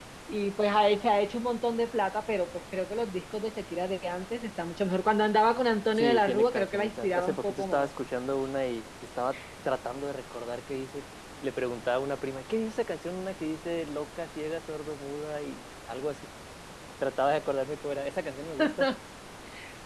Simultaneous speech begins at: 6 s

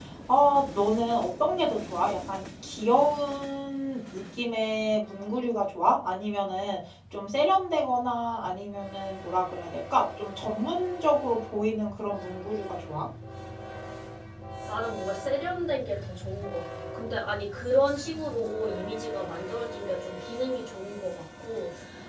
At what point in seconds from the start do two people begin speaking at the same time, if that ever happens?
none

